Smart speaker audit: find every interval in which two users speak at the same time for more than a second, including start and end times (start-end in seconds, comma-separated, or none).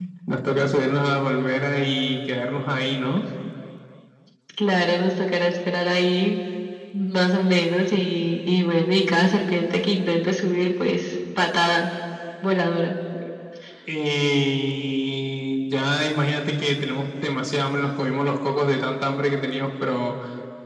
none